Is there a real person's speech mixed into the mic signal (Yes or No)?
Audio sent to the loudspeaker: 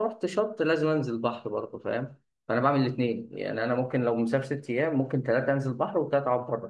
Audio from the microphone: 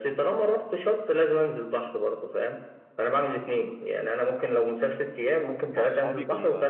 Yes